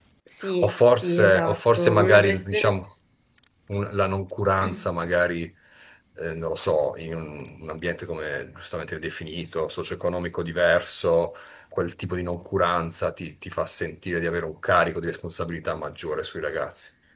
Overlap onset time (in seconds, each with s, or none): 0.6 s